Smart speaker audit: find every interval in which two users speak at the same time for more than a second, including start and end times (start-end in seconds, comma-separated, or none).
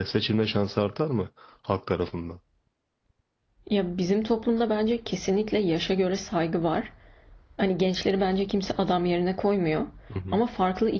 none